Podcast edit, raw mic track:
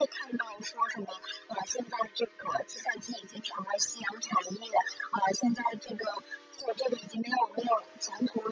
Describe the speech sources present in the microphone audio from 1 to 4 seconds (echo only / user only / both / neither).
echo only